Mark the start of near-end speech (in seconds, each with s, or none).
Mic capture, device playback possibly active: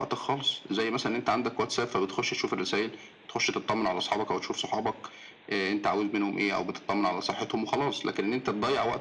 none